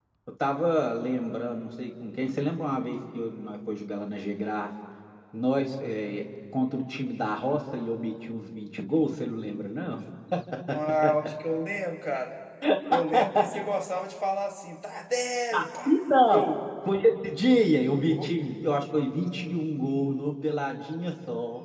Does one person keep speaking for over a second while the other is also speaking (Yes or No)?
No